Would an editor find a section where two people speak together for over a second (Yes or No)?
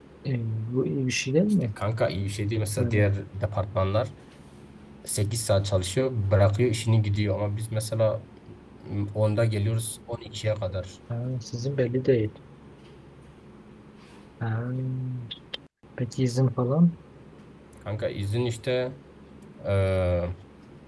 No